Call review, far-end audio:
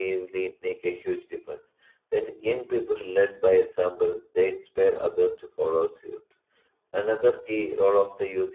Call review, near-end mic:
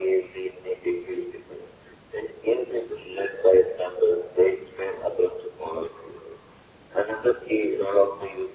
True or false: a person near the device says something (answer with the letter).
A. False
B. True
A